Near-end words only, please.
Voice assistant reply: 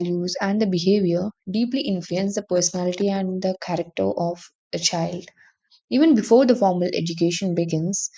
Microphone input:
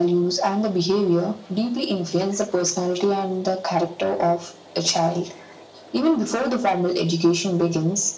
none

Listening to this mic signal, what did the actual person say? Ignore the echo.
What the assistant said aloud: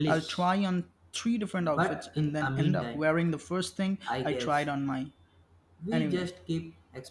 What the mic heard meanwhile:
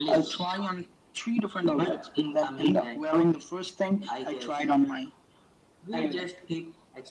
none

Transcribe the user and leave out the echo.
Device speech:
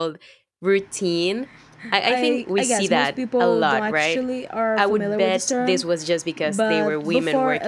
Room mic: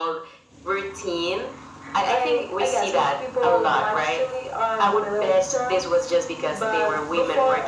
none

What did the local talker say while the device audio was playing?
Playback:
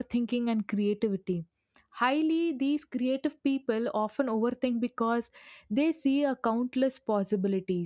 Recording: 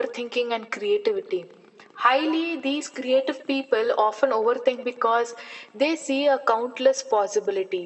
none

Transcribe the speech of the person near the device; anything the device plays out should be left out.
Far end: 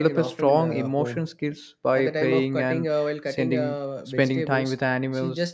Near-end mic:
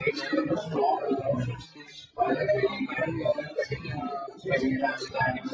none

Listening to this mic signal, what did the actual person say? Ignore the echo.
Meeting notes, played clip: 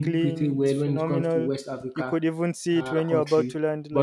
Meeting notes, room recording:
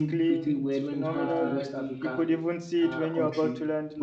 um the

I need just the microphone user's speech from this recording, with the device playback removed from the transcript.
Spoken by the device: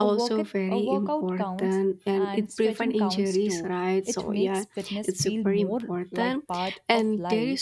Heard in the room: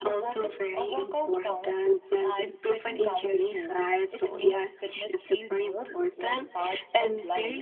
none

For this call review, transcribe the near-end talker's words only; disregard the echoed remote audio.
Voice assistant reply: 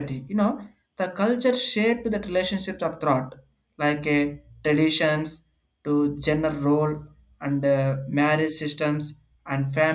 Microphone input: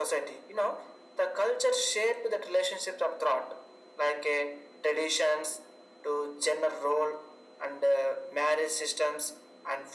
none

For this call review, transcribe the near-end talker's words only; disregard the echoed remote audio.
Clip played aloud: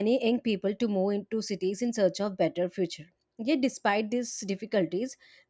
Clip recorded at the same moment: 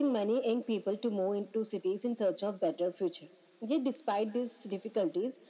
none

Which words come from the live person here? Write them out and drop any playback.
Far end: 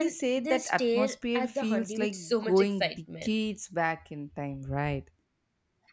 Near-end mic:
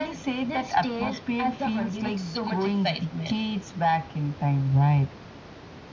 none

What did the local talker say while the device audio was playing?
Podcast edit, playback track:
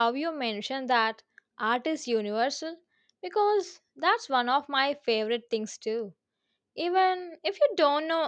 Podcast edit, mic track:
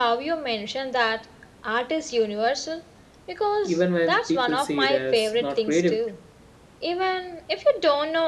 Even when people say that's not creative,

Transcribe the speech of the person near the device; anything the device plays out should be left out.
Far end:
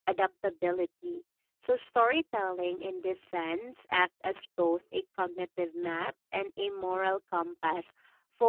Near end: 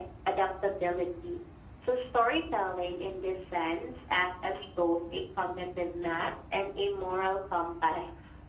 none

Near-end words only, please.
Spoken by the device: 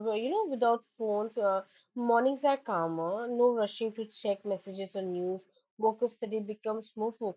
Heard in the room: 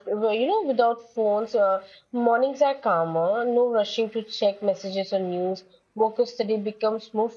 none

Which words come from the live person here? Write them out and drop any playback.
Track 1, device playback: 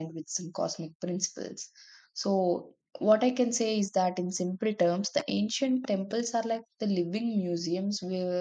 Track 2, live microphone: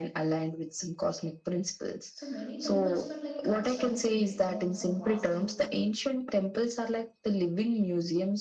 so many temples were like constructed based on some Vastu

